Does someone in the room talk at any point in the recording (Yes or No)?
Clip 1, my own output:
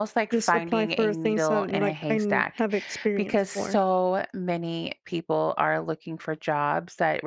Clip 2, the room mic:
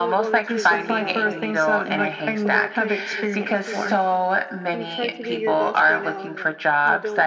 Yes